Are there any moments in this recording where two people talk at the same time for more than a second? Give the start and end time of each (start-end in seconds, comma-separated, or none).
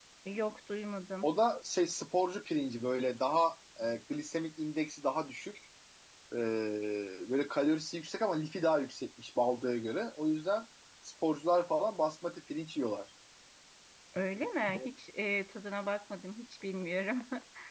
none